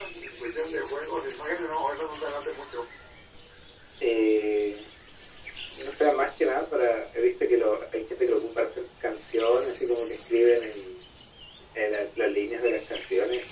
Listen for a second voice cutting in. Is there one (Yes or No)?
No